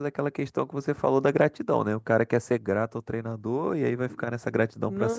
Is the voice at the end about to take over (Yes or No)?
Yes